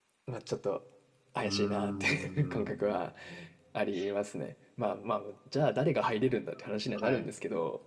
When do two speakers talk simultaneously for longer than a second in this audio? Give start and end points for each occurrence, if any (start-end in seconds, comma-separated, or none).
1.4-3.0